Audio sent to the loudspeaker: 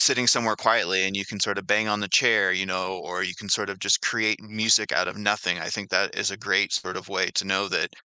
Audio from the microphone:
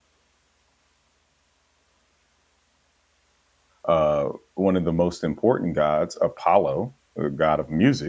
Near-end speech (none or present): present